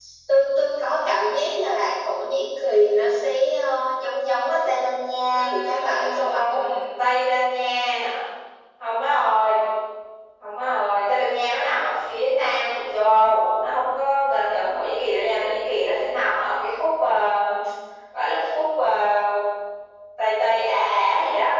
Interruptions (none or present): present